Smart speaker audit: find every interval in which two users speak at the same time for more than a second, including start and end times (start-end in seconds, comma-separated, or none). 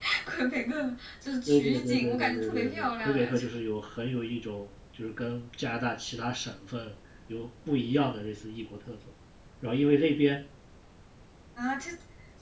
1.5-3.4